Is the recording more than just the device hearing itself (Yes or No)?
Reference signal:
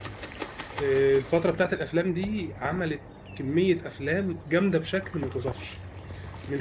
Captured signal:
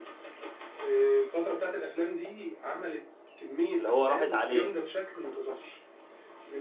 Yes